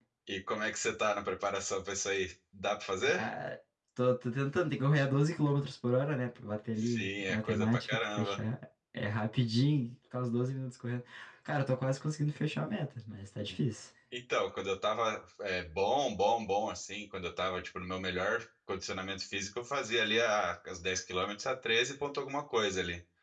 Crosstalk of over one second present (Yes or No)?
Yes